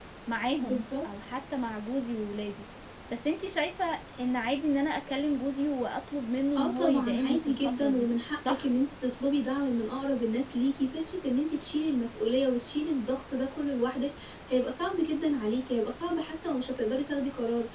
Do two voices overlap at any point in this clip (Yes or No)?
Yes